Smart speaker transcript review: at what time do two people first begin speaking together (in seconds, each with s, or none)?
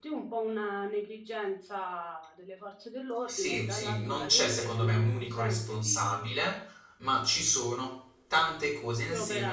3.3 s